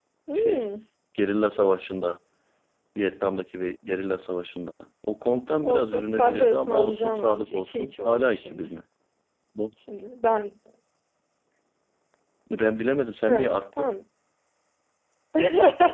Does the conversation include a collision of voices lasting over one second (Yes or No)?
Yes